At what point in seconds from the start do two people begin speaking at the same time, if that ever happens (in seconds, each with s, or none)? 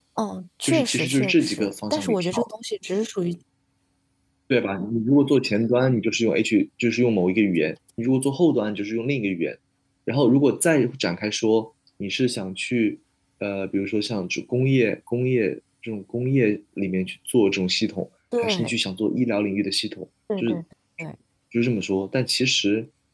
0.6 s